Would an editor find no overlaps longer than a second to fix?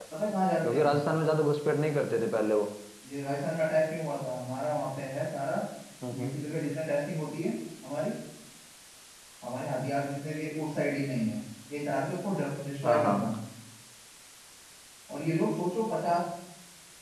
Yes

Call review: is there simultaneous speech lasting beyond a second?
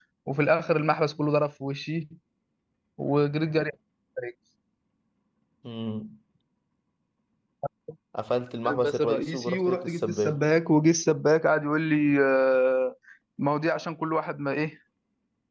Yes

